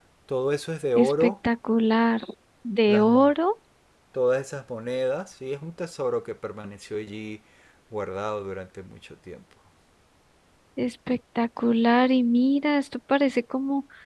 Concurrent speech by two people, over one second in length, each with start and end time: none

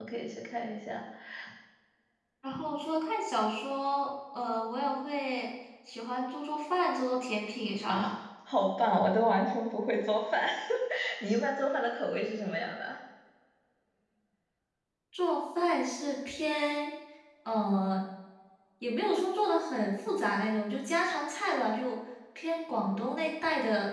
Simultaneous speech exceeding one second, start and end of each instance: none

